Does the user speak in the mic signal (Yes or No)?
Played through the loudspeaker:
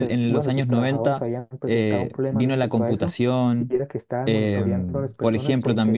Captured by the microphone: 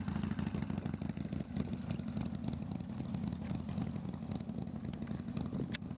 No